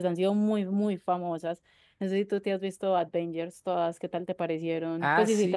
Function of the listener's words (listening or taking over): taking over